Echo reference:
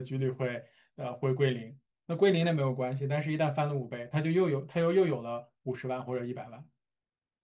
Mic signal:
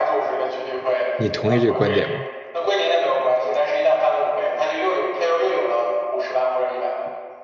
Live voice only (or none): 你同意这个观点吗？